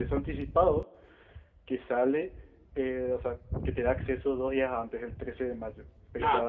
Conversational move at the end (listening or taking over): taking over